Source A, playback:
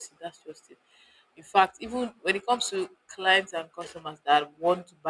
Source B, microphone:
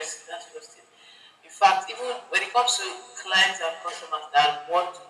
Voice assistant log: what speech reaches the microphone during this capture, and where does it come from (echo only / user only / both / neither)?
echo only